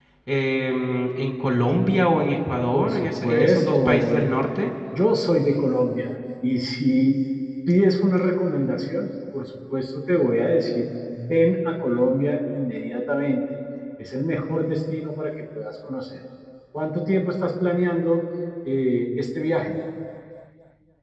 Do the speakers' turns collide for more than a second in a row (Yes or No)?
Yes